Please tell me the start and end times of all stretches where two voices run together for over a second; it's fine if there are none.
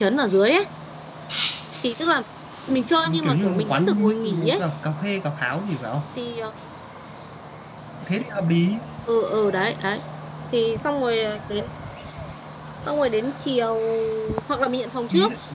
3.2-4.6

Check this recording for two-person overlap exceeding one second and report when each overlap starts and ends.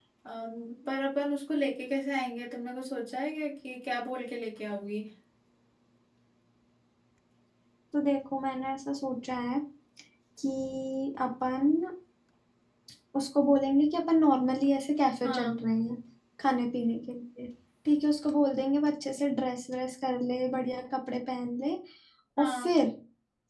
none

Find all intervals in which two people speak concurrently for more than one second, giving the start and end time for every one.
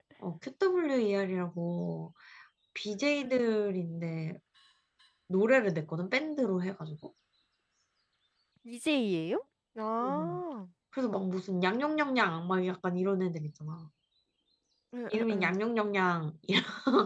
none

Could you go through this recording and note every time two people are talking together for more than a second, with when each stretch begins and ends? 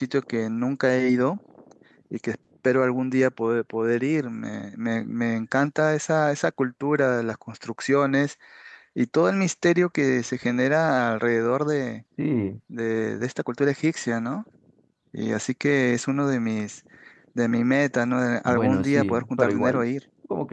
18.4-19.8

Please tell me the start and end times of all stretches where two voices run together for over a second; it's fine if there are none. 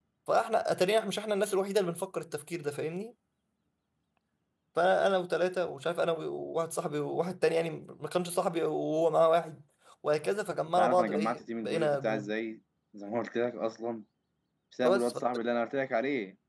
10.8-12.3

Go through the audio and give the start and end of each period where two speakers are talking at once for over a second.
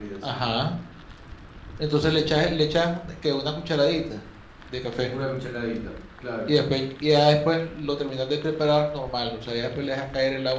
none

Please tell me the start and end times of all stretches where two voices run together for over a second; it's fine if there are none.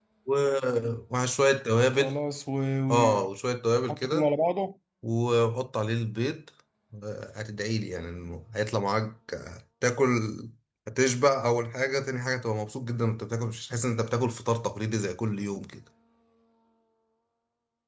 none

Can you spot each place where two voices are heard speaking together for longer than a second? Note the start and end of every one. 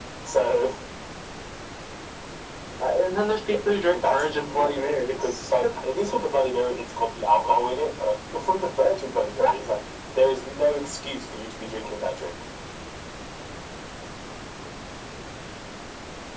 3.9-5.3

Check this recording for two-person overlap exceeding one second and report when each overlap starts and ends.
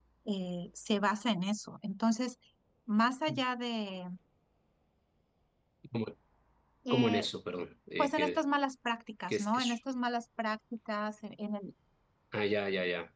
none

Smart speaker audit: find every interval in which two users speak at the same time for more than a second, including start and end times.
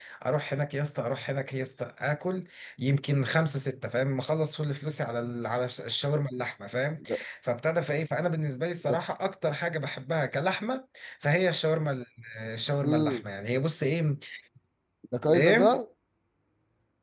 none

